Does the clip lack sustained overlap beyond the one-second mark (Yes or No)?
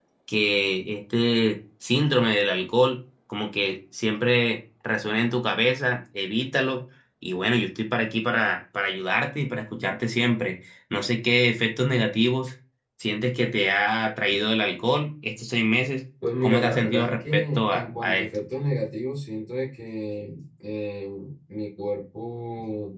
No